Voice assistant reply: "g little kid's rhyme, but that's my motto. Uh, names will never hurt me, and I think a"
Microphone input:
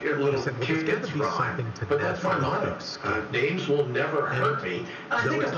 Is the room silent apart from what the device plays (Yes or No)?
No